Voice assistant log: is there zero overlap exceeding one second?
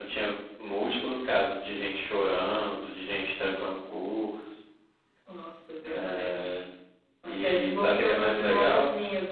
No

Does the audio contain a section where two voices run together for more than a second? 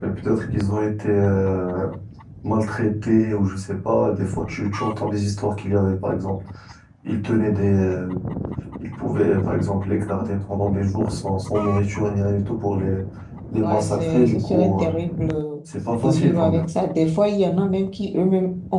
Yes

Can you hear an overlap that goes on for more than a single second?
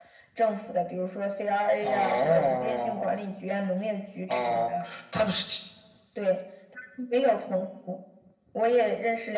Yes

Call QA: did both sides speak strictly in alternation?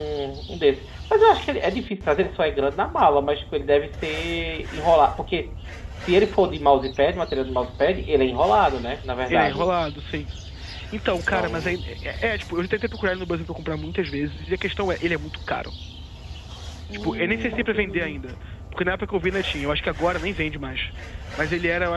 No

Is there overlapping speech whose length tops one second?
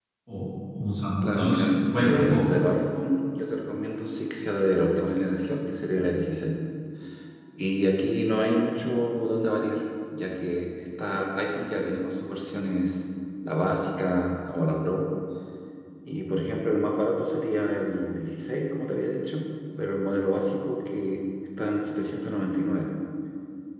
Yes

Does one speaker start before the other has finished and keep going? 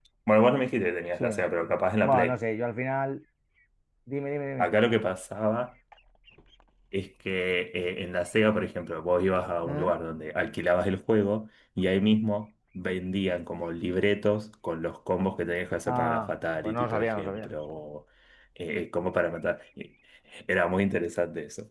Yes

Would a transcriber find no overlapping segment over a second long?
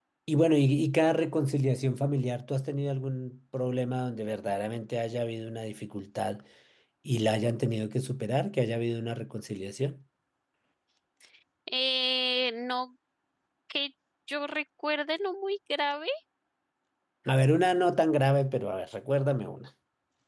Yes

